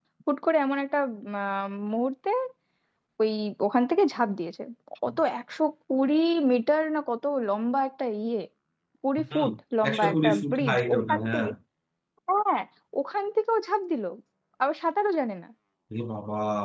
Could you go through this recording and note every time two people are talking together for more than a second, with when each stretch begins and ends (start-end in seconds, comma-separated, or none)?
9.9-11.5